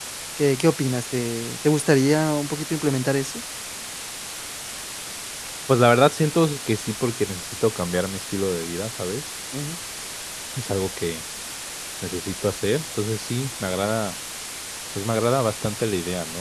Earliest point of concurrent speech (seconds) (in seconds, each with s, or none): none